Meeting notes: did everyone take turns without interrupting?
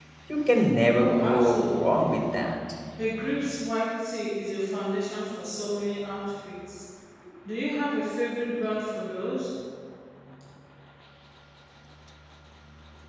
No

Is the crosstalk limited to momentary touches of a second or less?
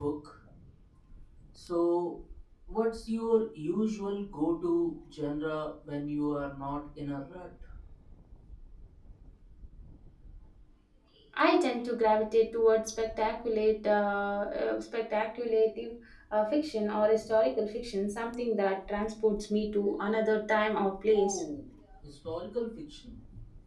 Yes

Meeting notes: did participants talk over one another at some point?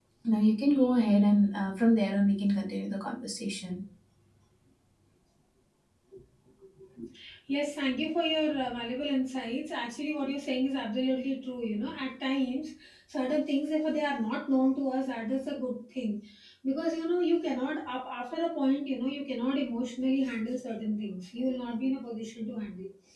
No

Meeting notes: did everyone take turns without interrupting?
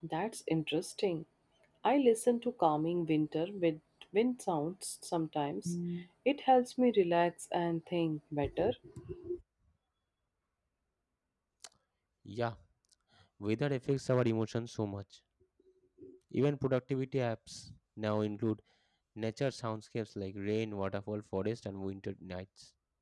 Yes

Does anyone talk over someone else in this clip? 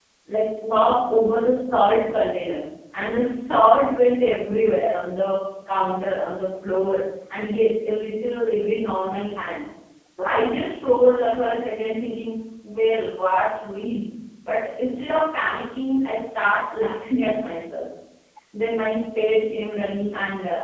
No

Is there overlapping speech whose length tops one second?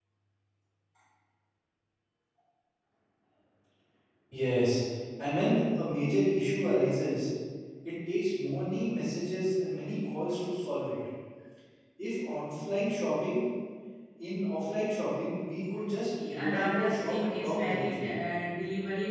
Yes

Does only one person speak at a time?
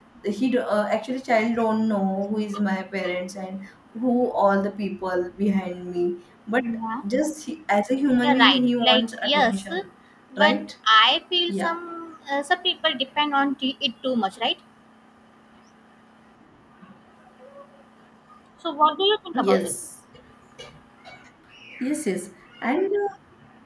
No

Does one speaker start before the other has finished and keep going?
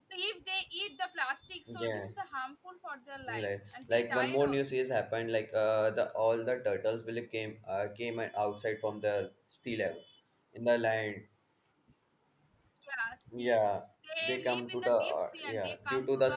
Yes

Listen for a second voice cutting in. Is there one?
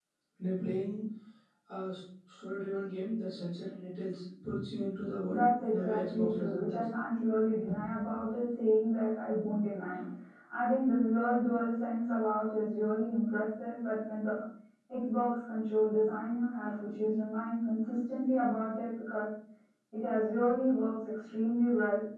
Yes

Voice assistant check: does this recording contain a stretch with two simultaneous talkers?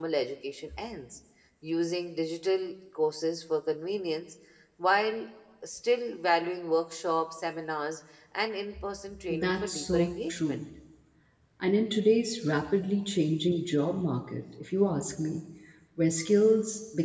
Yes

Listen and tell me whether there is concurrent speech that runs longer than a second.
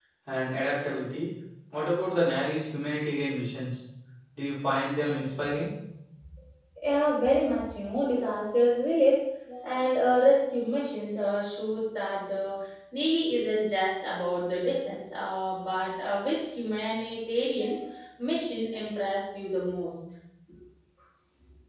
No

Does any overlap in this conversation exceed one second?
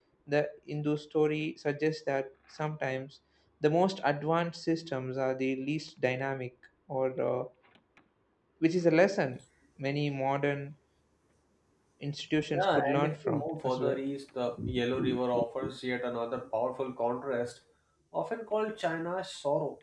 Yes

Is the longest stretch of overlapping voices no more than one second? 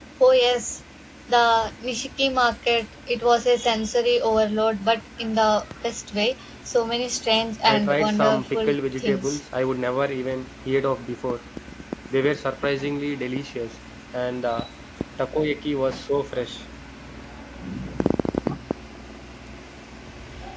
No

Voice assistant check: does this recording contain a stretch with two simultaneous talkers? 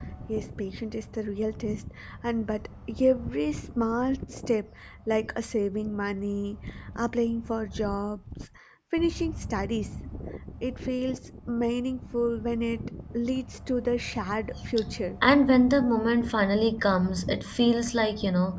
No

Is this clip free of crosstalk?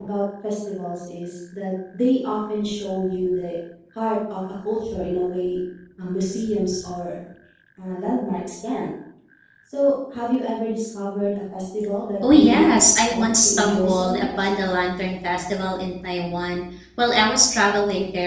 No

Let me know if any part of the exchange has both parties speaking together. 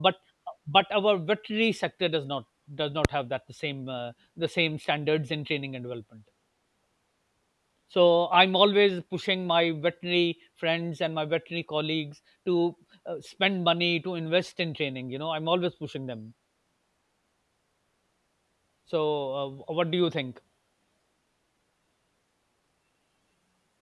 No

